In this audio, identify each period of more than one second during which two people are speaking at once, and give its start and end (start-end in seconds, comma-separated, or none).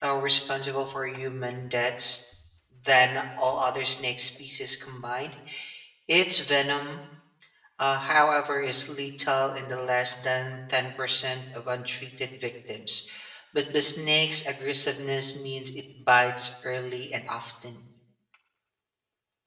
none